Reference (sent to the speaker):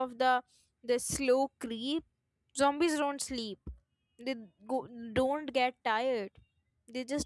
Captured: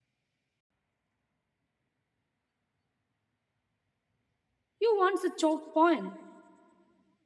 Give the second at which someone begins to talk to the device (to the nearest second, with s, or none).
5 s